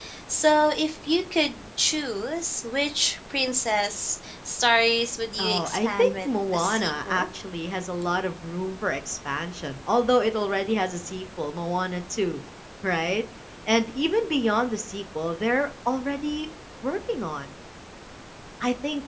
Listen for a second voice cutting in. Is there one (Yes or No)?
Yes